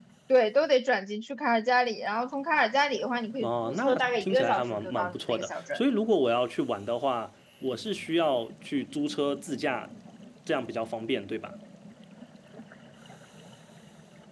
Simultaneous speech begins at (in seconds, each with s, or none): 3.4 s